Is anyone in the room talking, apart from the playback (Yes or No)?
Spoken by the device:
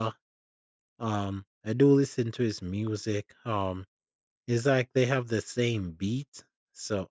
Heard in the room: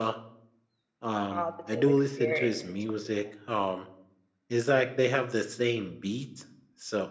Yes